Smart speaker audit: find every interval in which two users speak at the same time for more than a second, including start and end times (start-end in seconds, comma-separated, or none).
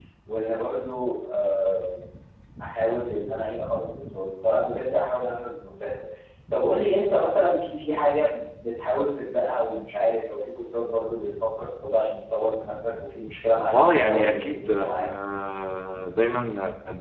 13.8-15.0